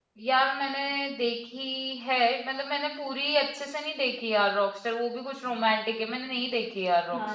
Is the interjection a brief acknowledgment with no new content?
No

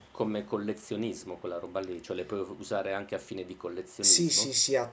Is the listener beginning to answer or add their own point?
Yes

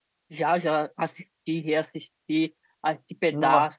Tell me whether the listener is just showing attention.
Yes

